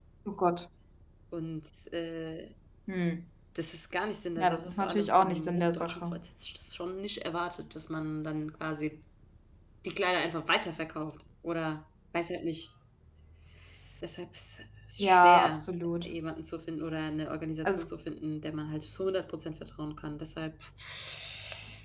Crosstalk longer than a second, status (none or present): present